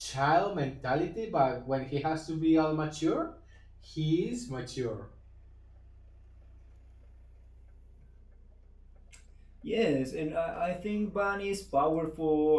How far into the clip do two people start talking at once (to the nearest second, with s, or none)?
none